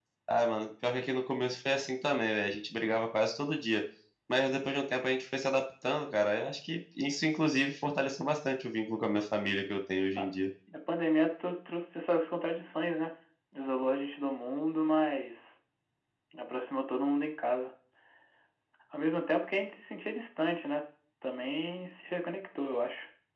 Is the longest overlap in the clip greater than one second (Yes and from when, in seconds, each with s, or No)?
No